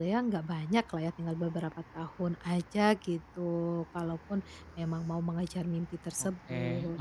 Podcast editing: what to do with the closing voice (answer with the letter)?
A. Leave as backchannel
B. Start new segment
B